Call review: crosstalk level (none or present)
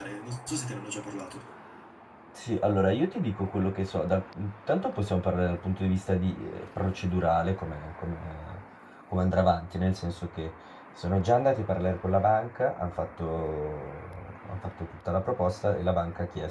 none